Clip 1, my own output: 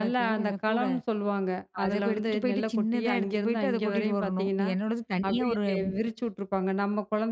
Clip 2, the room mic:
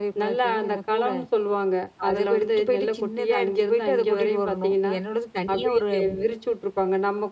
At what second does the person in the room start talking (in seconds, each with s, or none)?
none